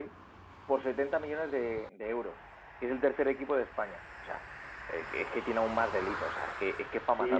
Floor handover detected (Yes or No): Yes